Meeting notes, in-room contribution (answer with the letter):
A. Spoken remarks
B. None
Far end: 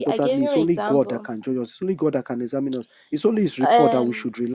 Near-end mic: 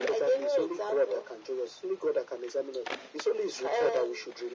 B